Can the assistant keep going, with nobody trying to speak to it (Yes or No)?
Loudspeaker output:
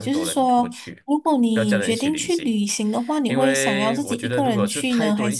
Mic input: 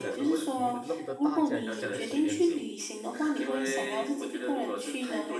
No